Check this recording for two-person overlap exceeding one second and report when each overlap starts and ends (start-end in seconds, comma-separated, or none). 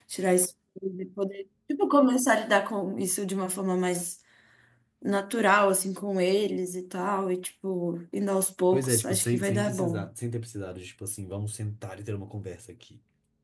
8.7-10.1